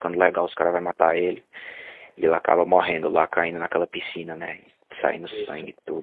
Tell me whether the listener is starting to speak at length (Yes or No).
No